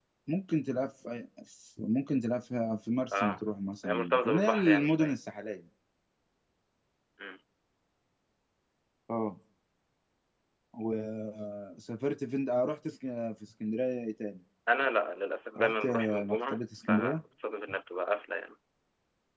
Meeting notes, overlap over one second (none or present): present